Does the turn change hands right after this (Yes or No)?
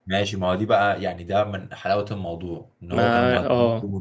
No